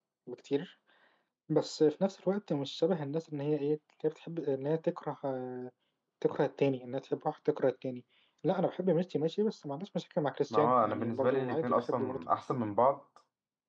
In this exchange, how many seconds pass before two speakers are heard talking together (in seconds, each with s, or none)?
10.5 s